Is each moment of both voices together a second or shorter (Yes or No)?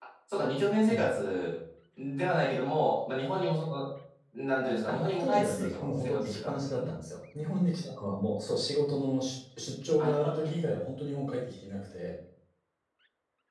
No